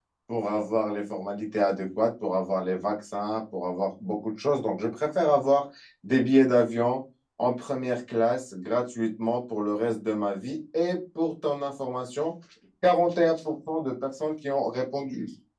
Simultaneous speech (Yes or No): No